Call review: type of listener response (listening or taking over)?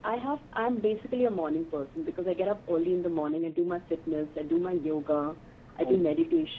listening